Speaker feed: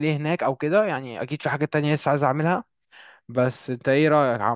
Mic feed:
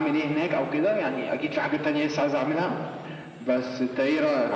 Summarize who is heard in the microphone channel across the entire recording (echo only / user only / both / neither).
echo only